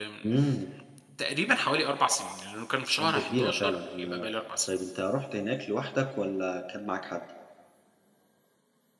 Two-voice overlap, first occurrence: 3.0 s

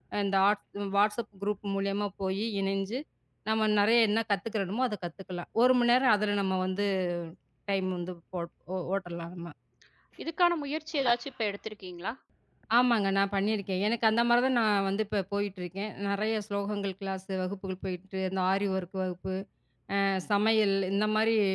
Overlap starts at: none

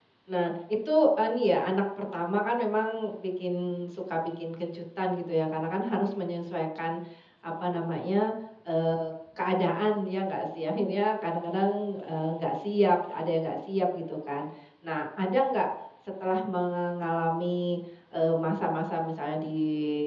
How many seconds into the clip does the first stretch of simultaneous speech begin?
none

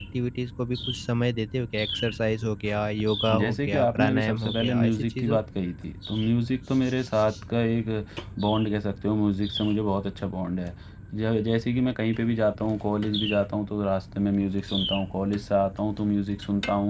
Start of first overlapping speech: 3.3 s

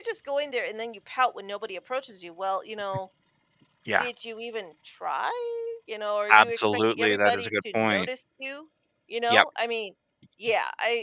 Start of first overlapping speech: 6.3 s

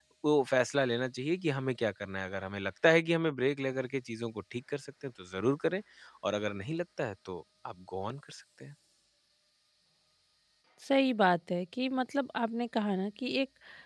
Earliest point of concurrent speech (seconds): none

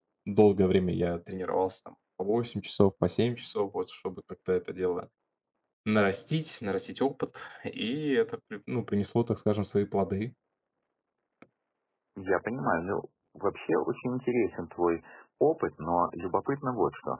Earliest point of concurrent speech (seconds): none

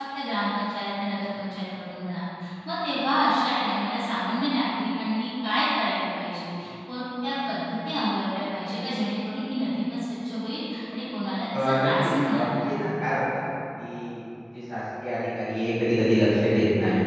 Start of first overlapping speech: 11.5 s

